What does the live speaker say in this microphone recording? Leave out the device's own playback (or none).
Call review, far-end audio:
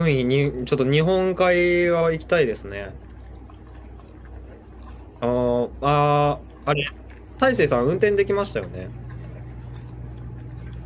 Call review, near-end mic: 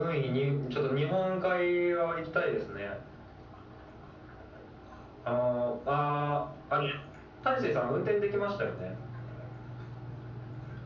none